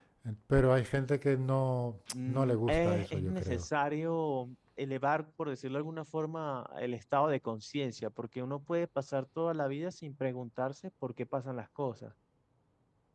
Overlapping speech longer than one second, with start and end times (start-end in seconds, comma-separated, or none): 2.3-3.7